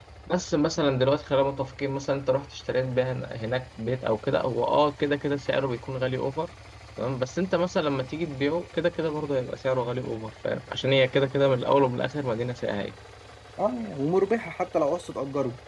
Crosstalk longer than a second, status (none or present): none